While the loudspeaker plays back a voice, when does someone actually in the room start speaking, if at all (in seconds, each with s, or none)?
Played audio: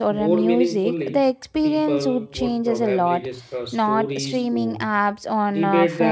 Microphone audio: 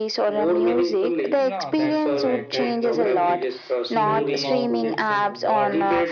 1.3 s